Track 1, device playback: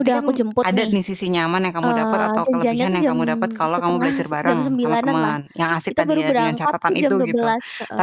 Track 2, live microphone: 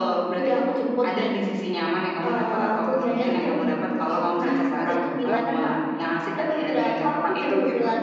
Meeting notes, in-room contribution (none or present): present